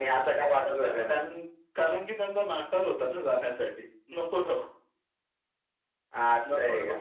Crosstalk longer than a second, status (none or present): none